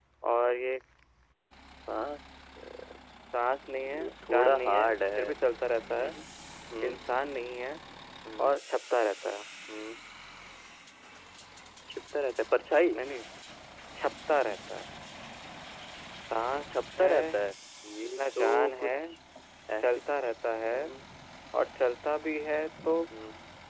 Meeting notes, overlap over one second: present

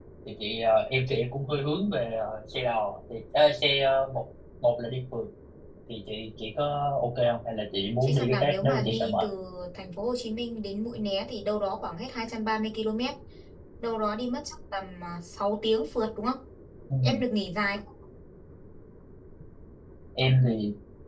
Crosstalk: present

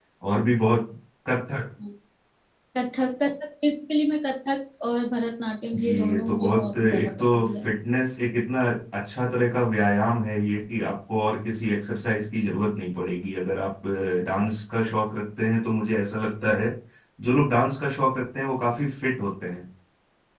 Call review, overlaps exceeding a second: present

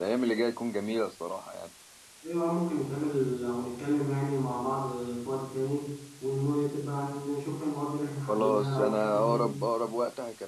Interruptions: present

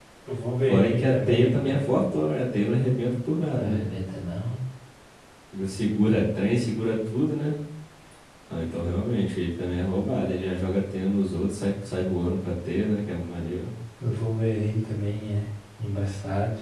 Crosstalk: present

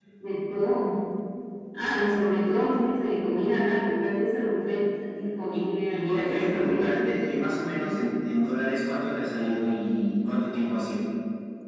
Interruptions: present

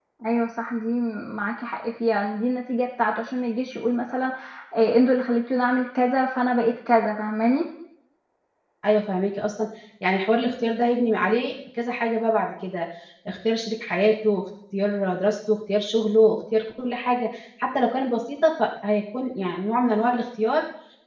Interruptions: none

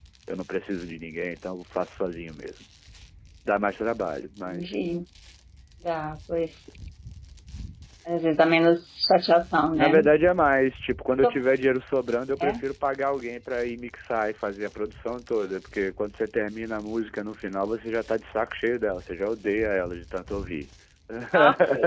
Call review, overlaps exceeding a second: none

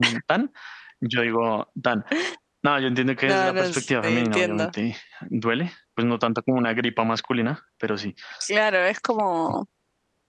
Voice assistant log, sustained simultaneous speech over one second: present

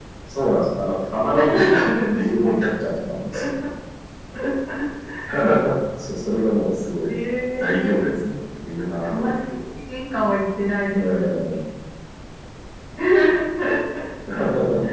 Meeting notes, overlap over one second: present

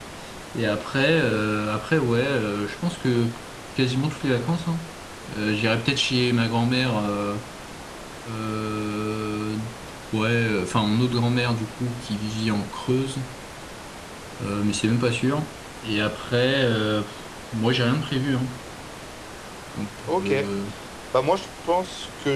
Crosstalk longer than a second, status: none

